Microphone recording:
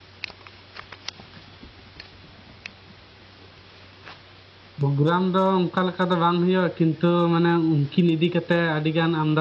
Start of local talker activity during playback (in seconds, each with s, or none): 4.8 s